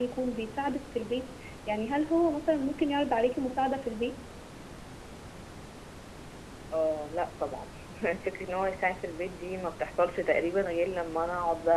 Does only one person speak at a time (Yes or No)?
Yes